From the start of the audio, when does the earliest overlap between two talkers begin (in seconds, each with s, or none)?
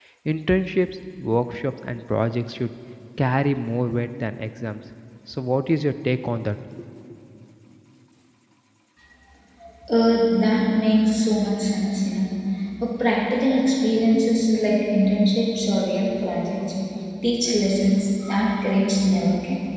none